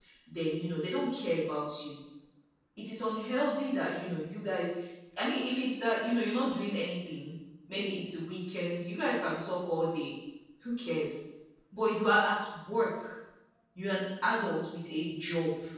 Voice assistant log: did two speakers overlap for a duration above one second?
No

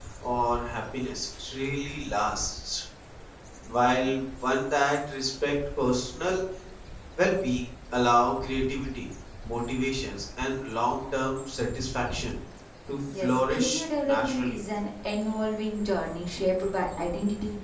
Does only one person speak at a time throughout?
No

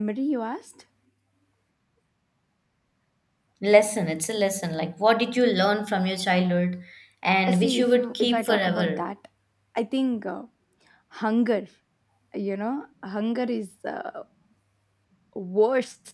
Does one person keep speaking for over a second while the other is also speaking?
Yes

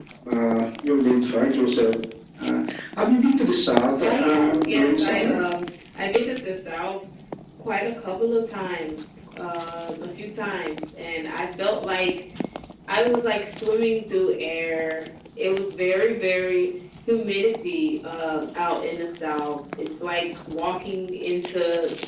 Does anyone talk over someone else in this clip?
Yes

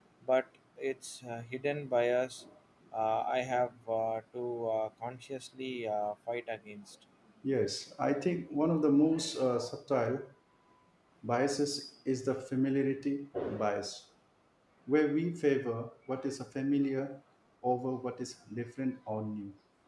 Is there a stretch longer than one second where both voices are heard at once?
No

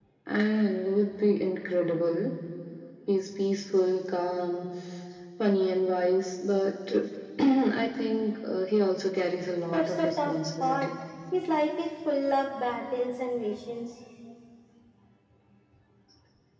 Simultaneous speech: Yes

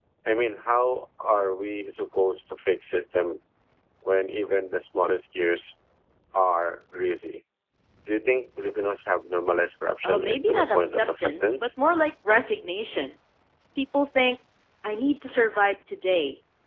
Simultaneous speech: Yes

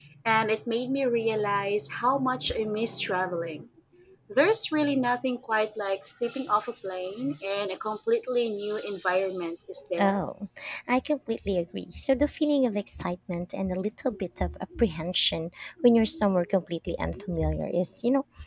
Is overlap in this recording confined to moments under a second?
Yes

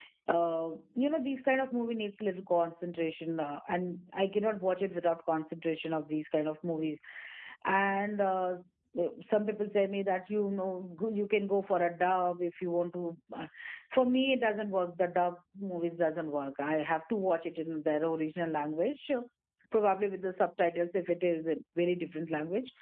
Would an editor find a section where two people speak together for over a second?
No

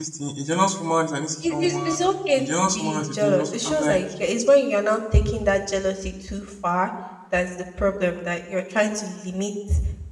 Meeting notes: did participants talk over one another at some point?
Yes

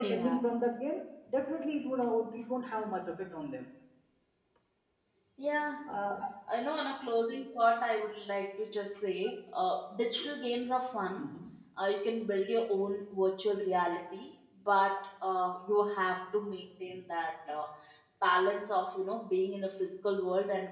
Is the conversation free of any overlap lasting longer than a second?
Yes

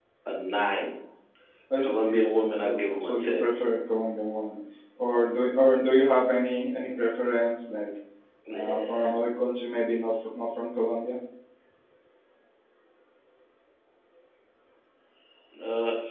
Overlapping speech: Yes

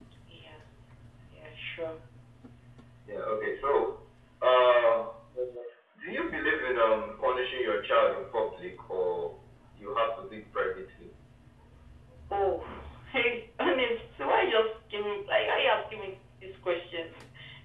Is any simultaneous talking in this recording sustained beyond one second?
No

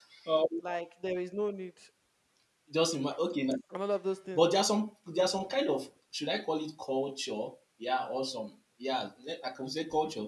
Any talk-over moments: No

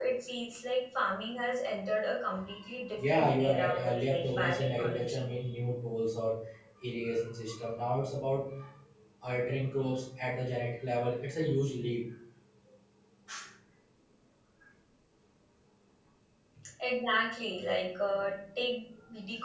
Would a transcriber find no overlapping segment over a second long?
No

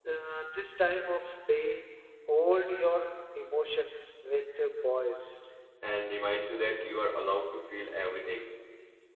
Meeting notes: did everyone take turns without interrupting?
Yes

